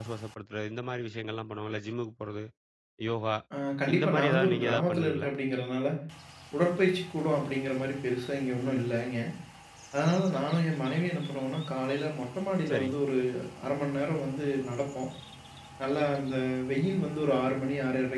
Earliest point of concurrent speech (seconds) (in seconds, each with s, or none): 4.0 s